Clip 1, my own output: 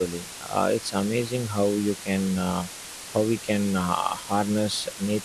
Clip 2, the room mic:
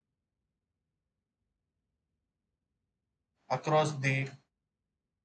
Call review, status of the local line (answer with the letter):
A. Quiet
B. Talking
B